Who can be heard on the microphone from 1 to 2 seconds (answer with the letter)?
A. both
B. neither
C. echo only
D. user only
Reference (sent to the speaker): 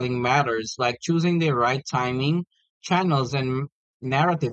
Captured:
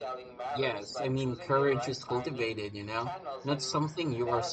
A